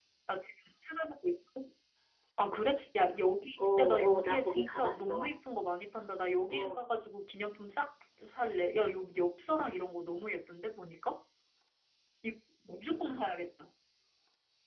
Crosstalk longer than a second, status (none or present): present